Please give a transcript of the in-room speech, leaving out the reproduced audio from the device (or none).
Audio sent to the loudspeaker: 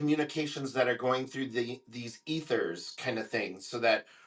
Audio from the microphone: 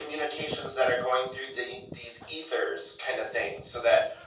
none